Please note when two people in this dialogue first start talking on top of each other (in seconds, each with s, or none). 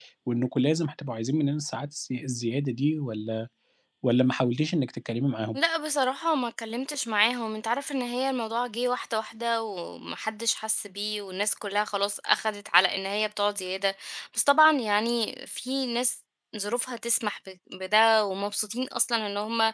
none